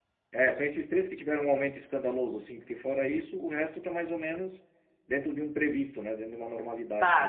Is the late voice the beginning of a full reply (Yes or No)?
Yes